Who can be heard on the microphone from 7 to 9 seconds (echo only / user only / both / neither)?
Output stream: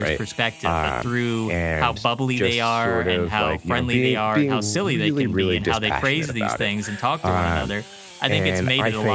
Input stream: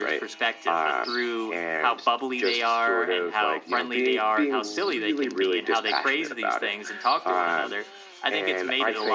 echo only